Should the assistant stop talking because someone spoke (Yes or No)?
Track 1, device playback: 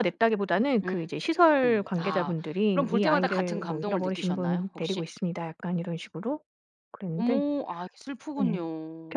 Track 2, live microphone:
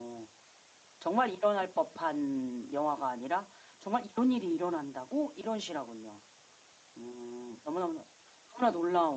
Yes